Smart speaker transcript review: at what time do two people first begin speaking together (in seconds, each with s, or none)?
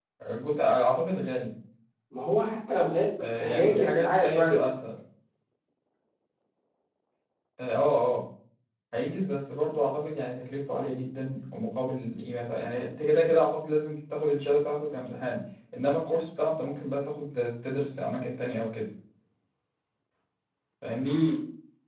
3.2 s